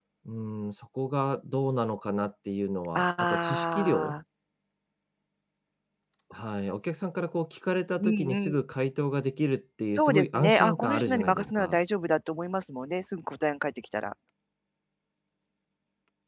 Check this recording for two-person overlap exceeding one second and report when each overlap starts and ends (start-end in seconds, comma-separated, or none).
3.0-4.2, 9.9-11.8